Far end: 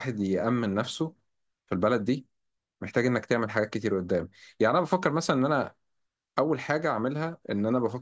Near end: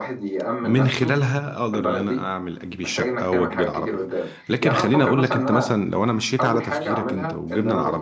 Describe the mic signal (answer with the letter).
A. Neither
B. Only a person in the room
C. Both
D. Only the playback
C